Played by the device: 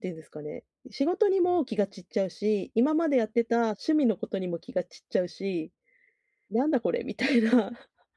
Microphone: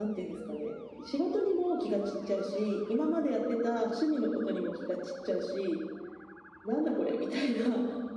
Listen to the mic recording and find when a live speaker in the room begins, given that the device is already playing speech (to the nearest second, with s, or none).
none